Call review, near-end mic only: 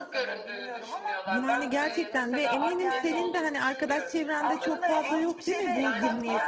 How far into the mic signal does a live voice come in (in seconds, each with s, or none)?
1.2 s